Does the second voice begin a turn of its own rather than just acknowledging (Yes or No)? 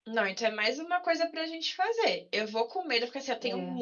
No